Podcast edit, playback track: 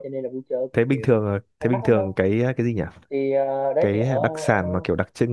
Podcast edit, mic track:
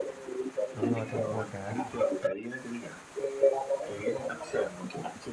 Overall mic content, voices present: both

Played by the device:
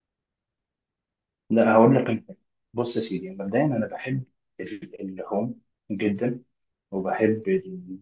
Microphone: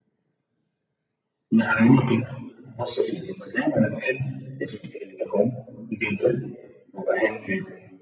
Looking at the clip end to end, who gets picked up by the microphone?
echo only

